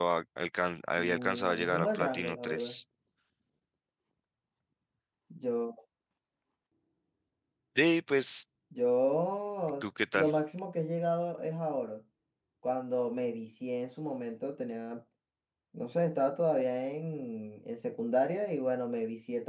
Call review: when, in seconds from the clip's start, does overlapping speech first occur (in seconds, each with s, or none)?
1.0 s